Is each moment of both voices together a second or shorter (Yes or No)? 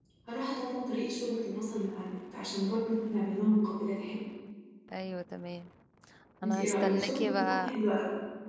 No